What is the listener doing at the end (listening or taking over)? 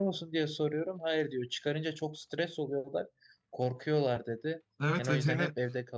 taking over